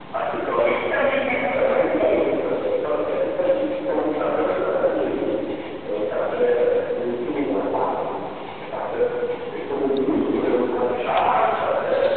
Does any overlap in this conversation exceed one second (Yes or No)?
Yes